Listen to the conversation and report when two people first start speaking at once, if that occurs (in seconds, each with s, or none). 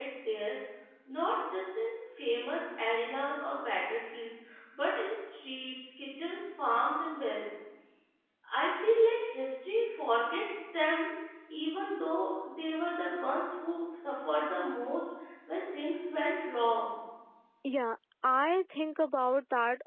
none